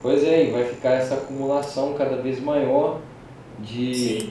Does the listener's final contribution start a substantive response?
No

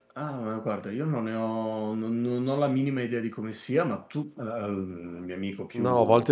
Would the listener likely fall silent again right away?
No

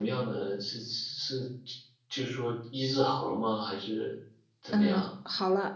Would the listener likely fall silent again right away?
No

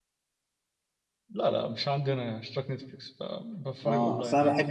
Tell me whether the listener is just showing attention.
No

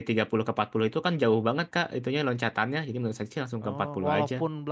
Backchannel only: No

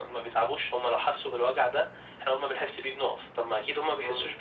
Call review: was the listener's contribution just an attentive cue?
Yes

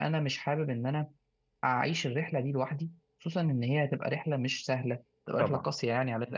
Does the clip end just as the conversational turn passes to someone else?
No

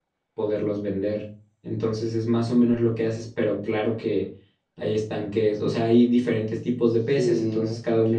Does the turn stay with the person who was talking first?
Yes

